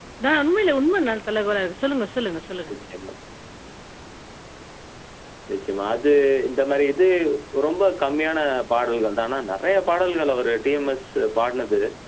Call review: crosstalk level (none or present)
none